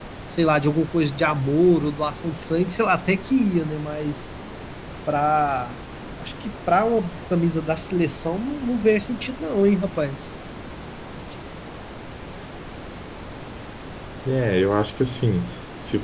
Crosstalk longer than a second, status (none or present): none